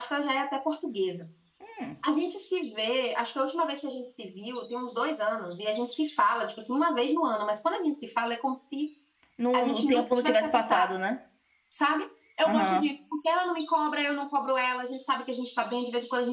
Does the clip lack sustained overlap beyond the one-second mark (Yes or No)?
No